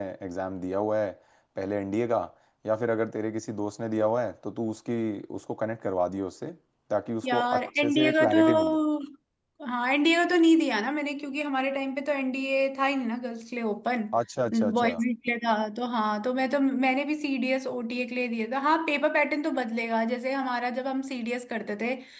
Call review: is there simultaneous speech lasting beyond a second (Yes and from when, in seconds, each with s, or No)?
Yes, from 7.2 s